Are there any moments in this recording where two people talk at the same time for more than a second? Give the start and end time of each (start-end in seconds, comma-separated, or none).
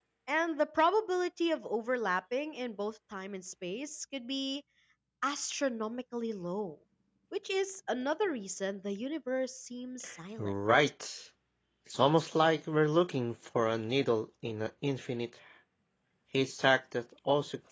none